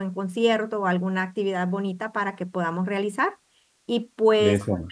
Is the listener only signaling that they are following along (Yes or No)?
Yes